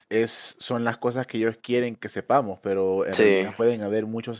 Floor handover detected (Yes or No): No